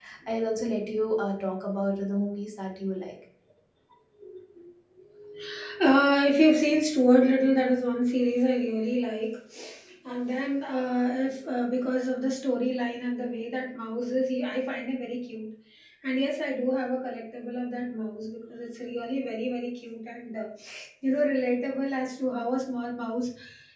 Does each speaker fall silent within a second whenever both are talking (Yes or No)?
Yes